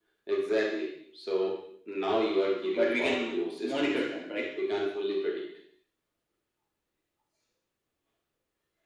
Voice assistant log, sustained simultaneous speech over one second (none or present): present